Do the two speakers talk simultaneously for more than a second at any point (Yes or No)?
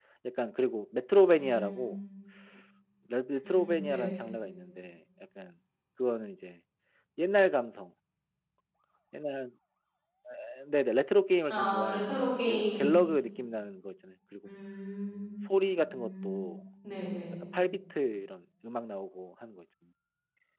Yes